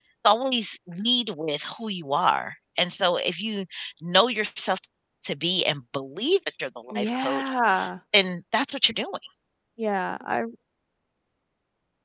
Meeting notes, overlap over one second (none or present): none